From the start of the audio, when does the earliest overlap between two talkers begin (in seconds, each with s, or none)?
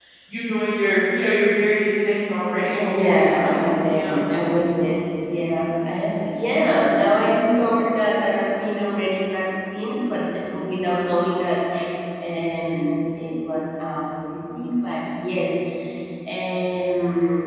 2.6 s